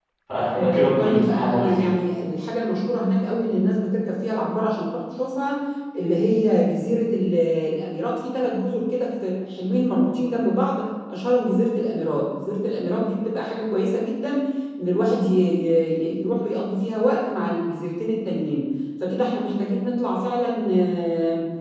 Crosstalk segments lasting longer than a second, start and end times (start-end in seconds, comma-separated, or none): 0.5-1.9